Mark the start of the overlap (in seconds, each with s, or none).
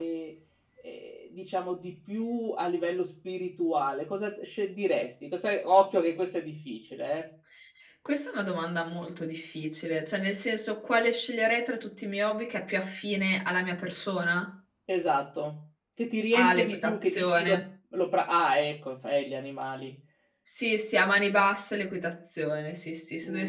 16.3 s